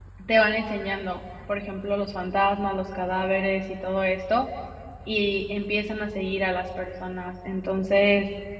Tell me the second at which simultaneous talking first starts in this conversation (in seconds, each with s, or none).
none